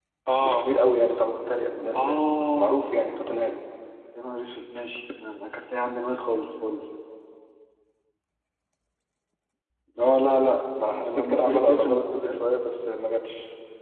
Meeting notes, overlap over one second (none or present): present